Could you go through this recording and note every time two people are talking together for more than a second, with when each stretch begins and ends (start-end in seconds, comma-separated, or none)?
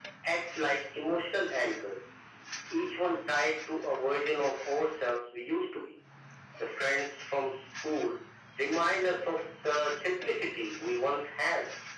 none